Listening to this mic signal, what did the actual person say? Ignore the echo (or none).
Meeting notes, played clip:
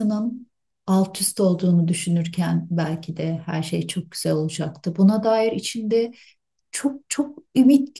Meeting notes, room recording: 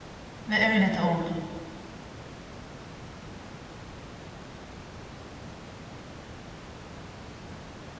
Ve öyle de oldu.